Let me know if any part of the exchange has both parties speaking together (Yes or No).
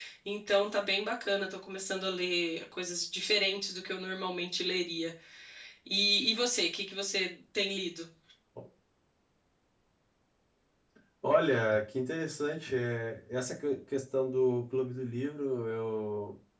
No